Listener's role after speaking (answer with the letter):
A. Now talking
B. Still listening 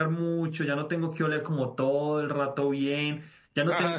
B